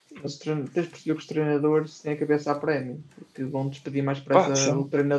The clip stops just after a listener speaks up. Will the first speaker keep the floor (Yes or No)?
Yes